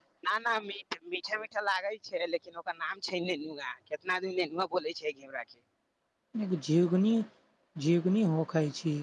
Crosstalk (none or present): none